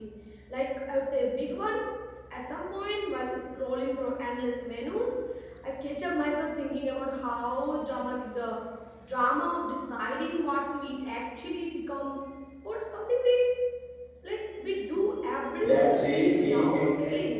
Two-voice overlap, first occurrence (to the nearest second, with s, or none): 16 s